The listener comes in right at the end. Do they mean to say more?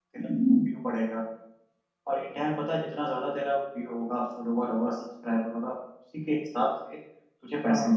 No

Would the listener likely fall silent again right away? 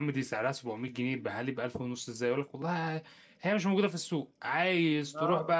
Yes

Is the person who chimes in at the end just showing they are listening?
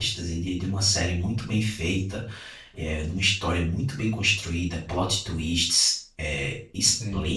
Yes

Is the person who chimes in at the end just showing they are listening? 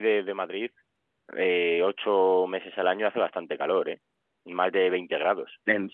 Yes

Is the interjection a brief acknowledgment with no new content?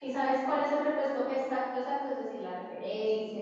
No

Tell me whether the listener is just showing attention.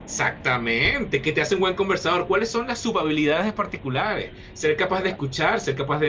Yes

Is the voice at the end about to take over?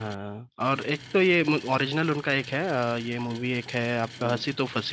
No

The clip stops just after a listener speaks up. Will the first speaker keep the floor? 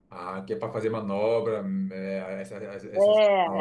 No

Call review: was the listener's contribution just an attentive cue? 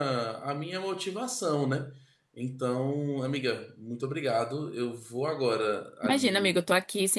No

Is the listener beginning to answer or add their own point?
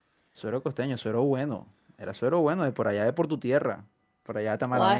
Yes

